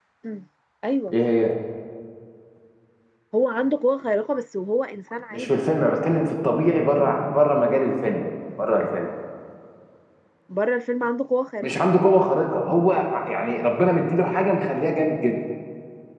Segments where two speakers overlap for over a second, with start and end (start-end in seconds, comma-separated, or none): none